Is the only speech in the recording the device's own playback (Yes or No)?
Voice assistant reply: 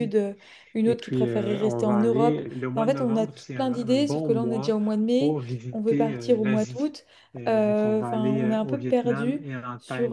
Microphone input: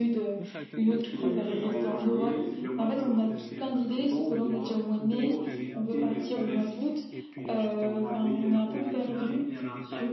No